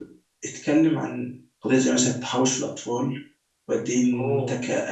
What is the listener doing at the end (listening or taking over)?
listening